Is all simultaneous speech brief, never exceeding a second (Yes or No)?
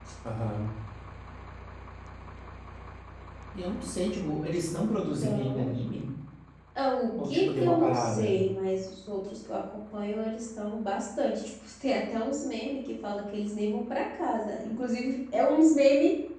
No